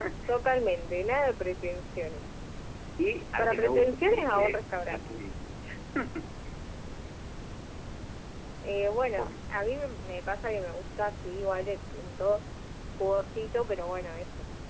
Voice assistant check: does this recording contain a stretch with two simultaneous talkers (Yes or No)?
Yes